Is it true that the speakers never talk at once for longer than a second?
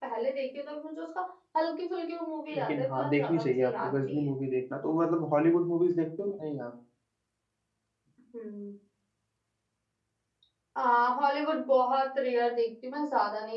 No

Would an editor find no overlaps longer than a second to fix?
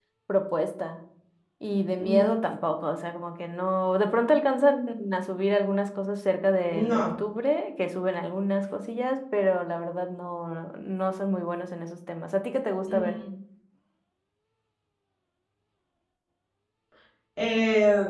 Yes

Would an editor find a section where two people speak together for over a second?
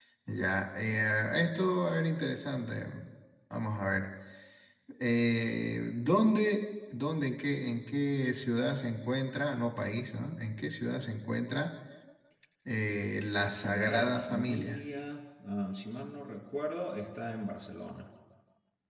Yes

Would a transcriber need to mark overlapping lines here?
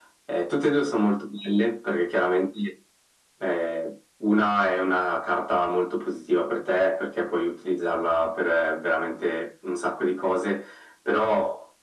No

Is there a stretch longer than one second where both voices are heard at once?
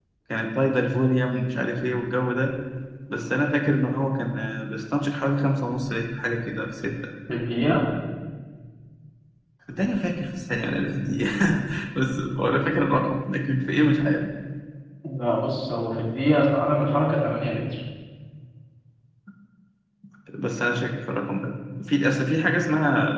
No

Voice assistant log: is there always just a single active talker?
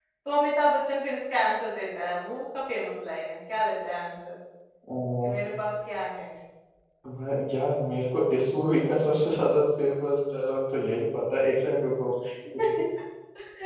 Yes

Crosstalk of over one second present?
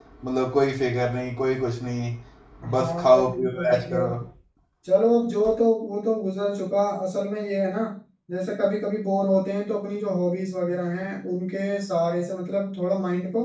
Yes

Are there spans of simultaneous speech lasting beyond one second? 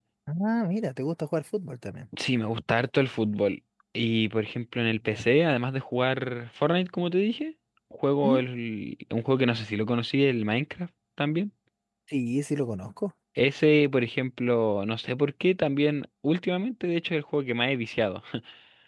No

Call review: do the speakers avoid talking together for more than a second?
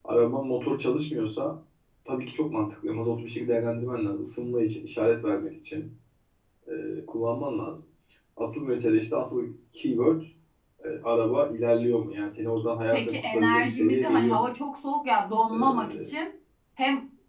No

